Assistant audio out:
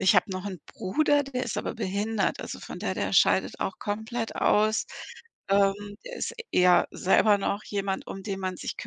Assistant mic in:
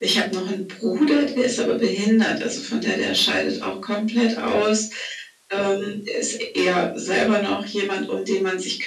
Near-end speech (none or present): none